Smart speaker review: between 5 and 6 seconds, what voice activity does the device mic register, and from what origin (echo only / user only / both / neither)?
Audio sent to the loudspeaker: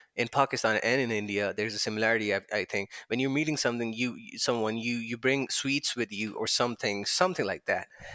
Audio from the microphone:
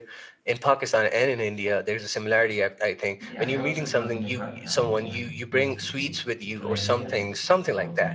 both